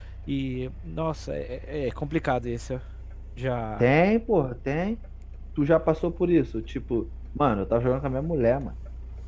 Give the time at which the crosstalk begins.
none

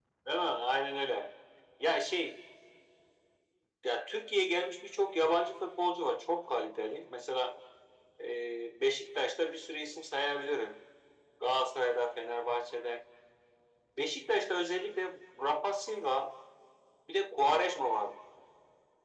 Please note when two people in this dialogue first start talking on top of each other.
none

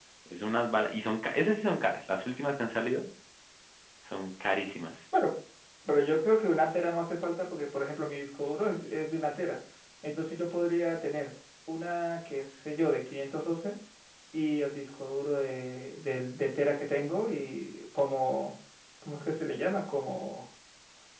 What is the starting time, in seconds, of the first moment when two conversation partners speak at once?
none

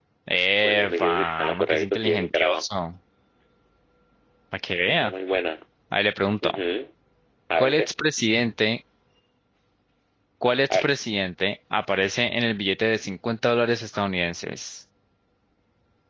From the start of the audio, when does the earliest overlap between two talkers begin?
0.6 s

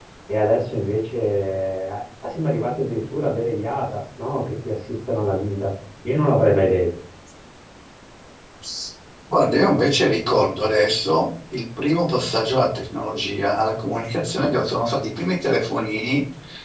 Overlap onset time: none

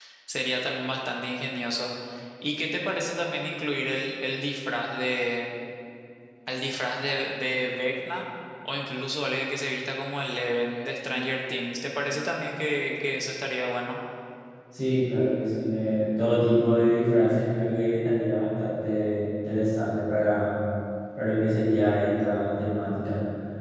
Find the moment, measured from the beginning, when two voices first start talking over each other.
none

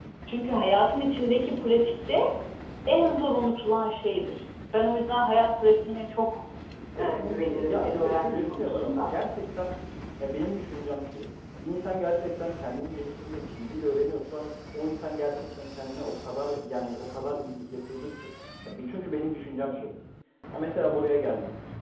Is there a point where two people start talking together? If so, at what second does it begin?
7.0 s

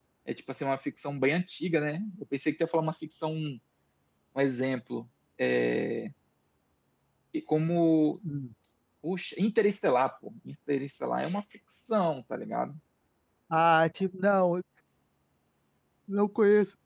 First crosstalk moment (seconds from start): none

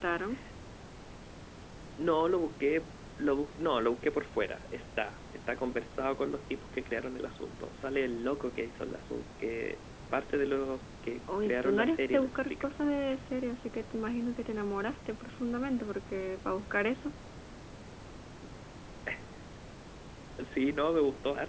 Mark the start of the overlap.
11.3 s

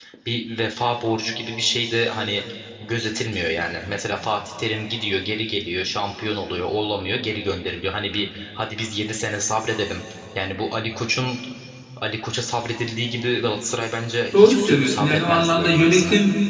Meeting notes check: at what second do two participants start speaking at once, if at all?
14.3 s

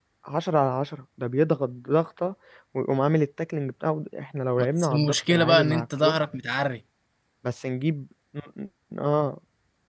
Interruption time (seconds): 4.6 s

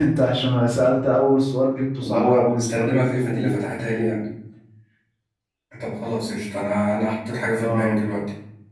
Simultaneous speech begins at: 2.0 s

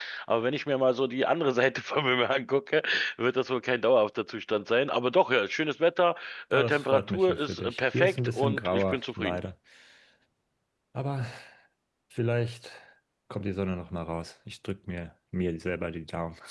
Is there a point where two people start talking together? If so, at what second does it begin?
6.5 s

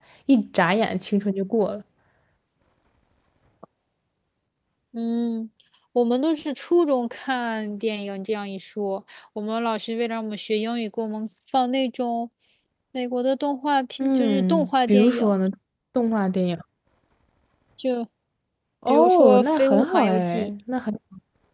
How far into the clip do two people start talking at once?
14.0 s

